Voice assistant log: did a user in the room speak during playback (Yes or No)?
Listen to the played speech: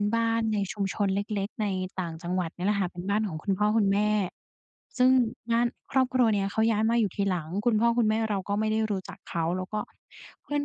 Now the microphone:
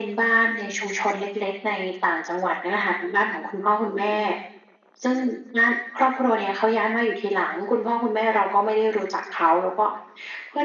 No